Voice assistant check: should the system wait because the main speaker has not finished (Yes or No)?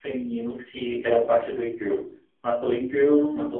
Yes